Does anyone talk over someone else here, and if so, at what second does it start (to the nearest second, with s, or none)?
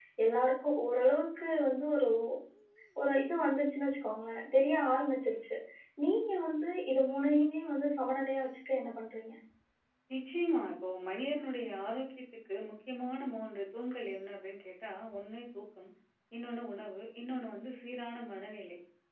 none